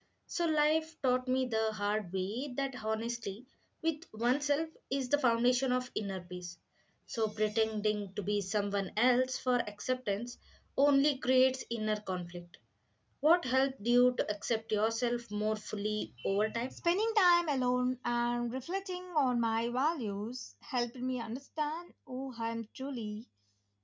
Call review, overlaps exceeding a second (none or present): none